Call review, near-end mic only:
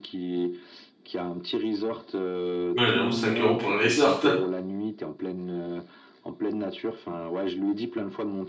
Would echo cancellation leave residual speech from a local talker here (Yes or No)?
Yes